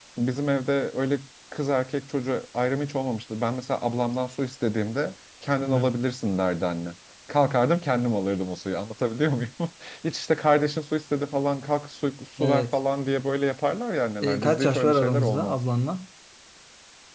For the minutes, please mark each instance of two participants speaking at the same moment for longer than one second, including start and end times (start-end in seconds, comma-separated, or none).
14.2-15.6